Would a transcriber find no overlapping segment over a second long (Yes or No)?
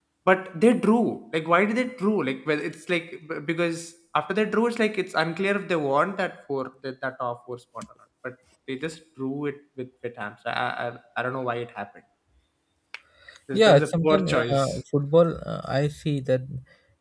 No